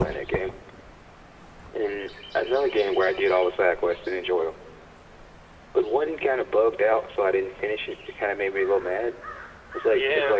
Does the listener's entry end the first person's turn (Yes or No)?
No